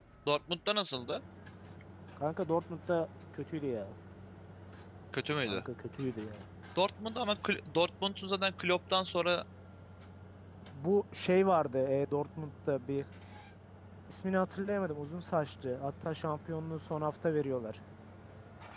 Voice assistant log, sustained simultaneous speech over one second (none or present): none